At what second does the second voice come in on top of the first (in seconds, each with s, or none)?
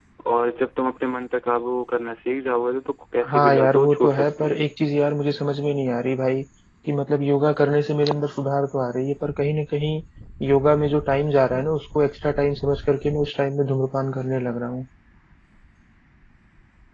3.2 s